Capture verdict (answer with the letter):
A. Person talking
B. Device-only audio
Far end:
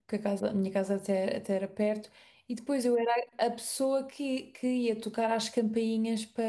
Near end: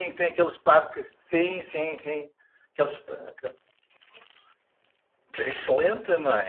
A